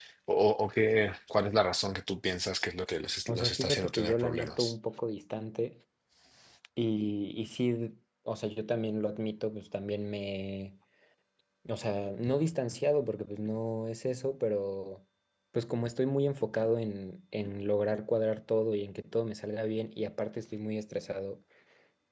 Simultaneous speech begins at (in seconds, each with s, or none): 3.3 s